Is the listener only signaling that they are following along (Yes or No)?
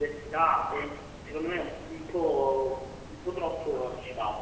No